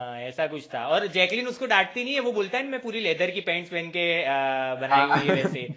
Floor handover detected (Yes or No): No